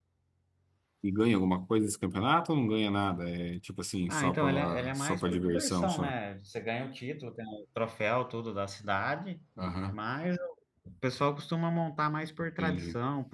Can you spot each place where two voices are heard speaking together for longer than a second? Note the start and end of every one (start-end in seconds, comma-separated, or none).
4.1-6.1